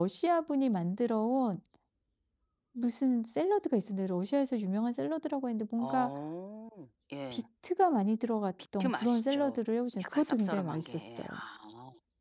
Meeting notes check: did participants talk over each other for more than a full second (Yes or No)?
Yes